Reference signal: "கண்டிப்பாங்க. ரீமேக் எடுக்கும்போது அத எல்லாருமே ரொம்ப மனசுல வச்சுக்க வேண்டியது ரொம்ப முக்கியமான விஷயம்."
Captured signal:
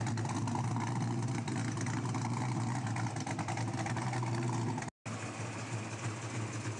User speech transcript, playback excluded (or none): none